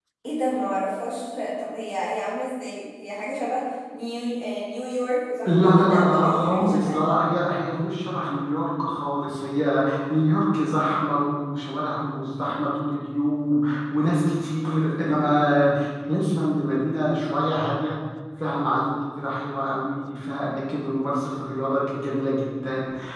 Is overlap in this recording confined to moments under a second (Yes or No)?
No